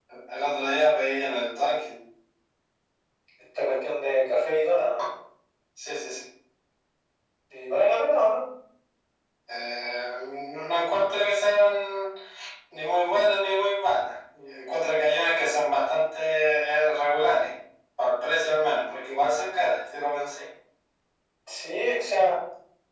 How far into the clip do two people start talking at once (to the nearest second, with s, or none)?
none